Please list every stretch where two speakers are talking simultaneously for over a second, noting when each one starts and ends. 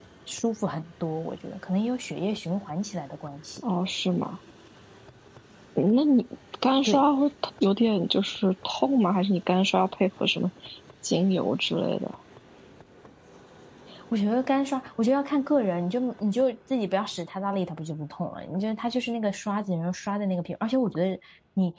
none

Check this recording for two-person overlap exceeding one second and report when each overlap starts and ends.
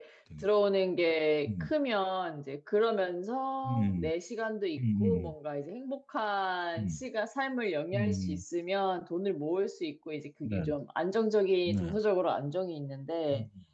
none

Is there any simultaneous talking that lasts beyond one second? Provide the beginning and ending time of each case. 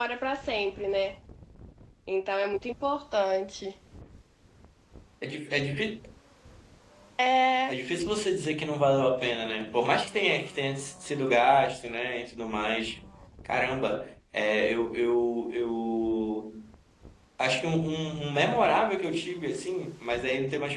none

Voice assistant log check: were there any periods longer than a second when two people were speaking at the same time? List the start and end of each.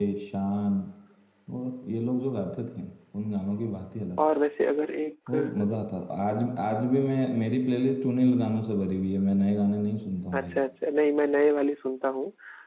none

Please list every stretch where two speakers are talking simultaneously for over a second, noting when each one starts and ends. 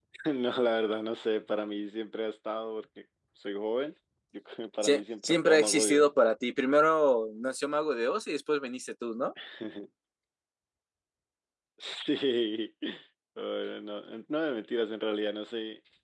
4.8-6.1

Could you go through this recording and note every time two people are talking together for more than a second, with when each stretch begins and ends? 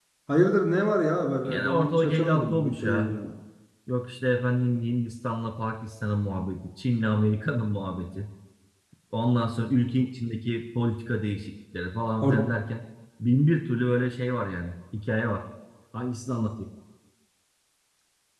1.4-3.1

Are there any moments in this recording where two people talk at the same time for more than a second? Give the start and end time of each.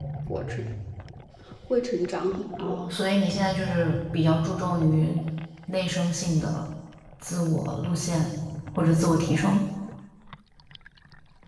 none

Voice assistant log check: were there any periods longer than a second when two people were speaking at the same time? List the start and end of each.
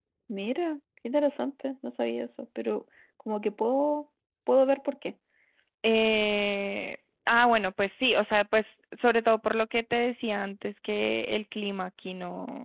none

